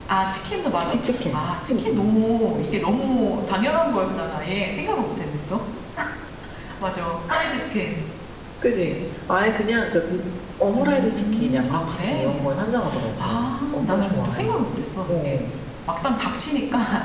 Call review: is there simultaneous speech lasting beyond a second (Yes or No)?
Yes